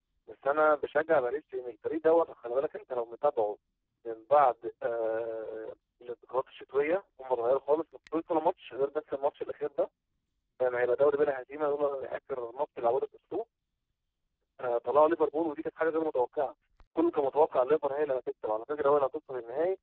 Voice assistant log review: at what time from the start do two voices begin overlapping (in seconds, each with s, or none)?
none